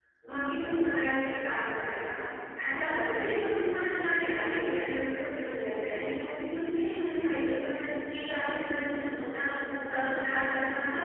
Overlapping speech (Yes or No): No